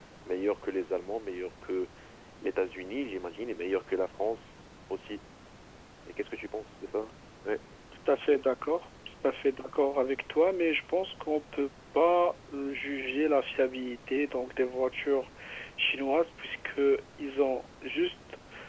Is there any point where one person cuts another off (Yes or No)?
No